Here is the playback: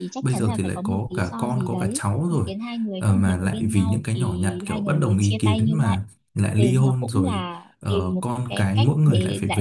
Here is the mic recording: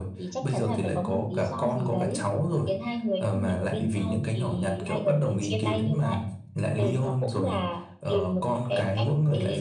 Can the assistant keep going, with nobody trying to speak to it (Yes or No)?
Yes